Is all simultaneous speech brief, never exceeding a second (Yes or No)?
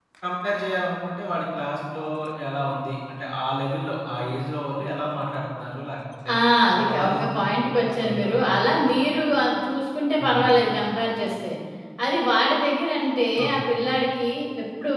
No